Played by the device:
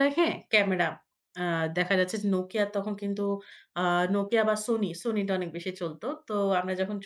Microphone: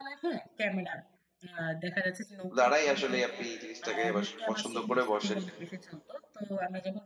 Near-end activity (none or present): present